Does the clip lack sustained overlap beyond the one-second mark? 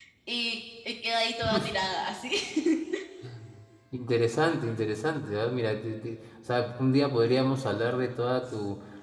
Yes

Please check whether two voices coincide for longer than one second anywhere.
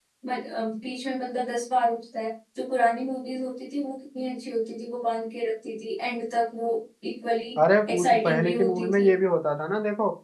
Yes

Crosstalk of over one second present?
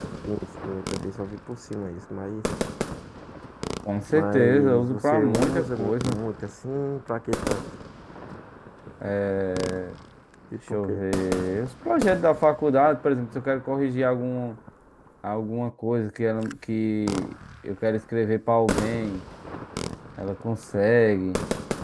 Yes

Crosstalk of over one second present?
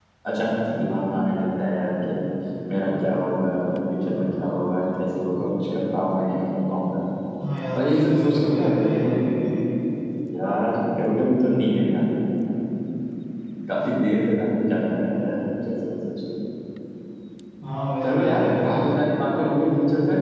Yes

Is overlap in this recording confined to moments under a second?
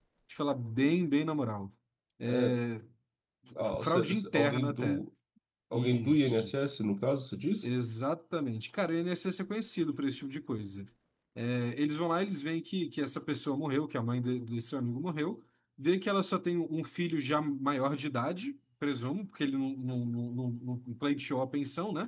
No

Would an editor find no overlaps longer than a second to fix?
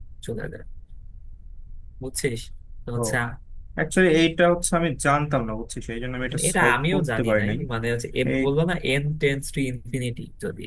No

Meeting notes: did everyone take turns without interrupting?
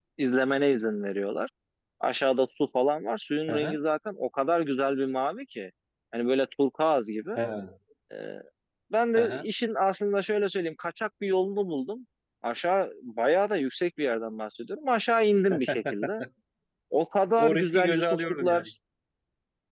No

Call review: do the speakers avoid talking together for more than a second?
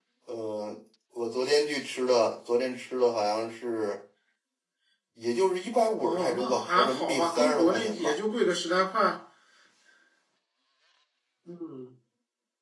No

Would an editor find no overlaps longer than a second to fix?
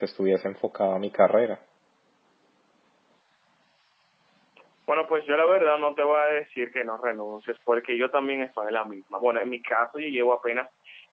Yes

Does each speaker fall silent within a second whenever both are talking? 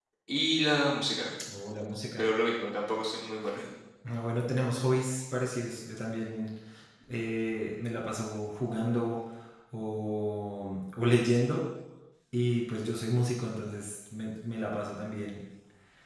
Yes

